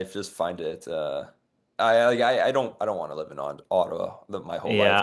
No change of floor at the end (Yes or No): No